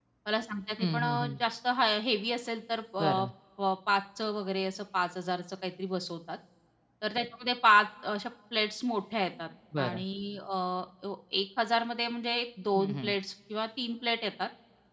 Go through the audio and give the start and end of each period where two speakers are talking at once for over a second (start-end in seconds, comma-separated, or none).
none